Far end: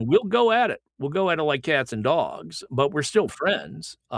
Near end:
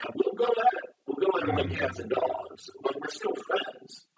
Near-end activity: present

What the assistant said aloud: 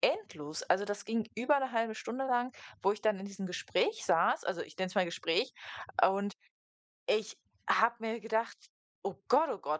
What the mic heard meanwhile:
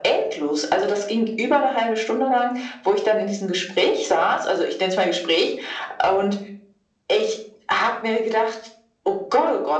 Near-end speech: none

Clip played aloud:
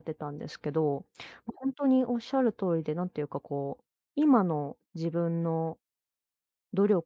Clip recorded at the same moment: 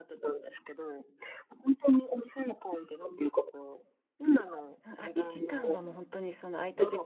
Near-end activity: present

